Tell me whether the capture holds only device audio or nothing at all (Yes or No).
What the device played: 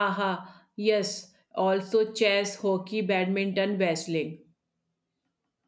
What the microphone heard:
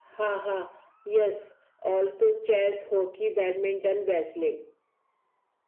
Yes